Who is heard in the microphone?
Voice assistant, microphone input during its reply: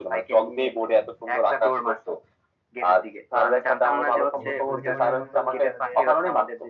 both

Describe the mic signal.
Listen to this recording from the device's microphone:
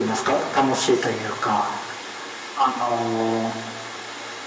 echo only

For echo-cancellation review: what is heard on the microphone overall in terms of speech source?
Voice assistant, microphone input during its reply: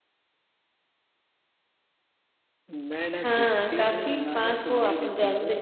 both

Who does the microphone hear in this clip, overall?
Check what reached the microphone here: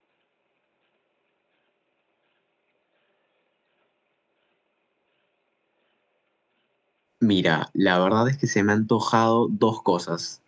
user only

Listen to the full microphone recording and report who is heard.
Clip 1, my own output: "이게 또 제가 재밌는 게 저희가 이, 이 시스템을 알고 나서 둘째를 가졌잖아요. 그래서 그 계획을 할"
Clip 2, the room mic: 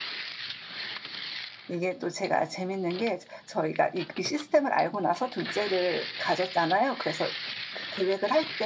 echo only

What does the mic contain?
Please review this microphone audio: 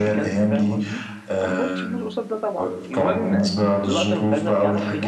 both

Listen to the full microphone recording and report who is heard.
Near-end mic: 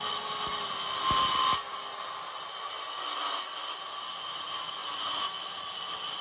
neither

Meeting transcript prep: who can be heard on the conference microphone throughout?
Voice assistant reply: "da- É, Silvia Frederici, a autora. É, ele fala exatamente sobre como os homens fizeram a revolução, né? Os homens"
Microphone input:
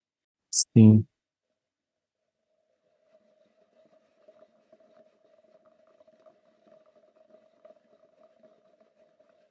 user only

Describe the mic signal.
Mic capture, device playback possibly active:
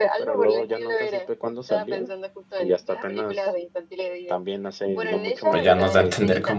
both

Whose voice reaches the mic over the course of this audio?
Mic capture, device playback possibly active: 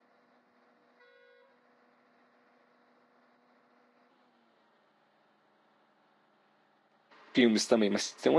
user only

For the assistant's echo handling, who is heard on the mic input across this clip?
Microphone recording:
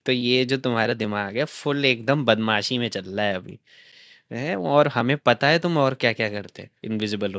user only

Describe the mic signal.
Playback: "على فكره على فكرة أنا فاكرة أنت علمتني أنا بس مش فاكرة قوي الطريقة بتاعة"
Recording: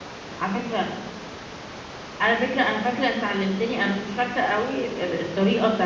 echo only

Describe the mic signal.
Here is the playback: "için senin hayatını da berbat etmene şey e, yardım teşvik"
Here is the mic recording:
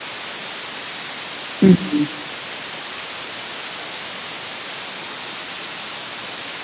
user only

